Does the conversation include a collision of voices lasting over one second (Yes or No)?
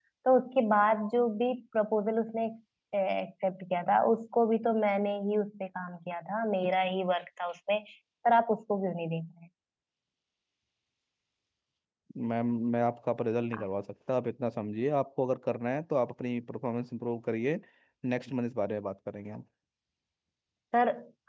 No